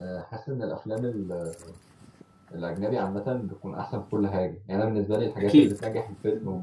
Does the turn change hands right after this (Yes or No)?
No